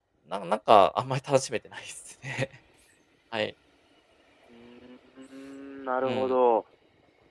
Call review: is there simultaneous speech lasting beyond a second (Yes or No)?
No